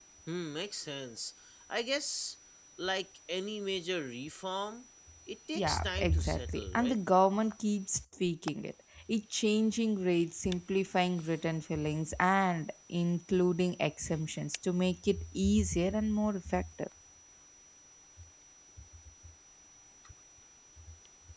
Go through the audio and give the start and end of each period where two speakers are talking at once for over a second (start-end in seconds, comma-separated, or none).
5.5-7.0